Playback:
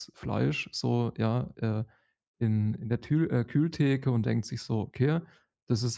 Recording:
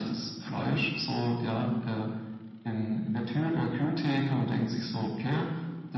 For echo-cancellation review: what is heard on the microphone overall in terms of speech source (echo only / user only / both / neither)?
echo only